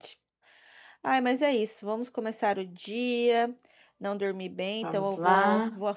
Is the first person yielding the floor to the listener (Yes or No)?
No